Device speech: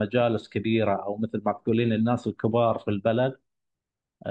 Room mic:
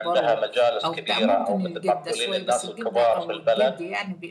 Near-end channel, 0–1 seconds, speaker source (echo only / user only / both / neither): both